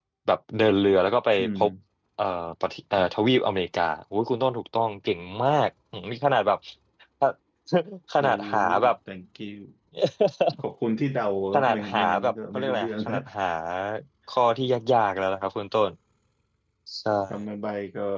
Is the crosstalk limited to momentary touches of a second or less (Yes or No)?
No